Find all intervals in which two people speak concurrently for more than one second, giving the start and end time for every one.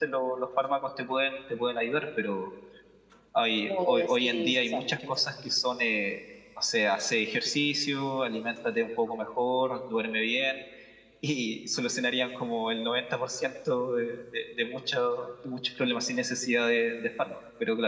3.6-5.0

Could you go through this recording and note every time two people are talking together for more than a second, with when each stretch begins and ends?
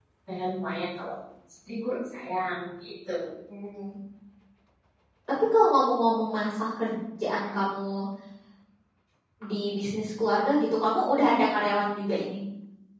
none

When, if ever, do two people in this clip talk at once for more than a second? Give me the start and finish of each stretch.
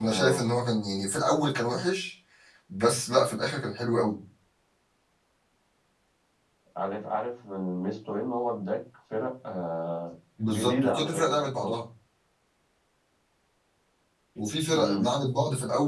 10.4-11.7

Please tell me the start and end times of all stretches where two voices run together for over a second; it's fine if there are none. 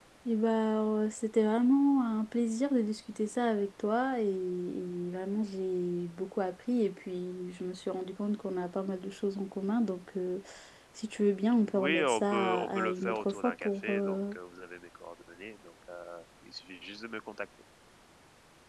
11.7-14.3

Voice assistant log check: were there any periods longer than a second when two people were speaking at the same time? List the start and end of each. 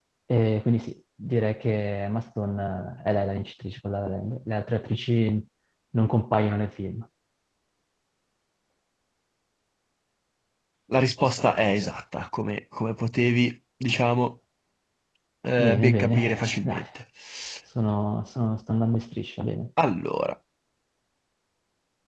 15.6-16.8

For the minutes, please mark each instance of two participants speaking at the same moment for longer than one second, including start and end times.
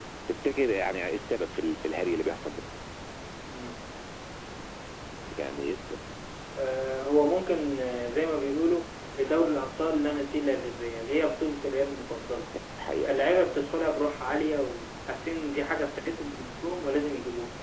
none

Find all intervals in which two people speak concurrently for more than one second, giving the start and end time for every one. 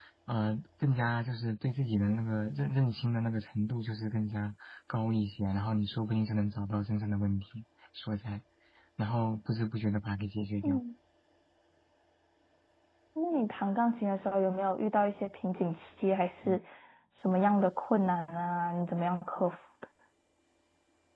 none

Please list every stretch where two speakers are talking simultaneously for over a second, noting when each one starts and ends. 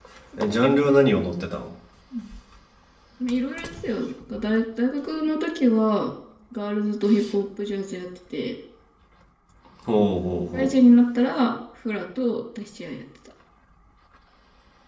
none

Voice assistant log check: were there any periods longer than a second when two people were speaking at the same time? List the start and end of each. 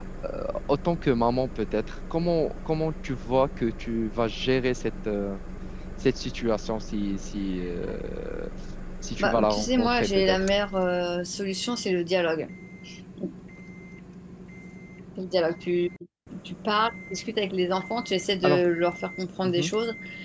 9.2-10.5

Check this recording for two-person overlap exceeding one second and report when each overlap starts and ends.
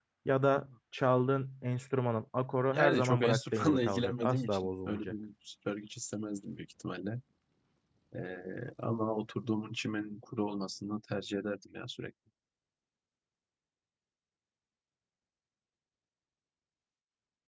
2.7-5.2

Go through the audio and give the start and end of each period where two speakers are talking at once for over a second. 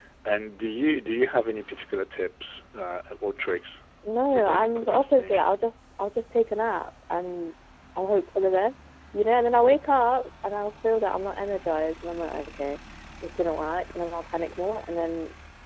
4.3-5.5

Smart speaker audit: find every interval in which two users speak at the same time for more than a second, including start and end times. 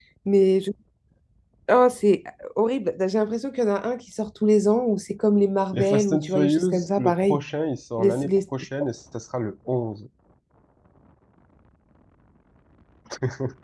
5.7-7.4

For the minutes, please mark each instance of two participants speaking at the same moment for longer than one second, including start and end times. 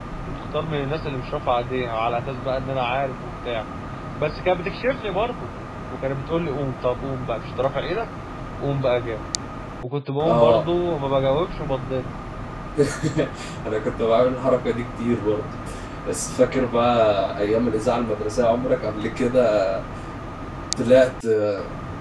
none

